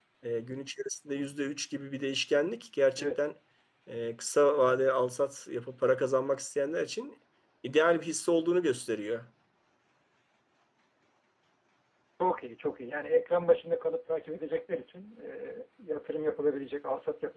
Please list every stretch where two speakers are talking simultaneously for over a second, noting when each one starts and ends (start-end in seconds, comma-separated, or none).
none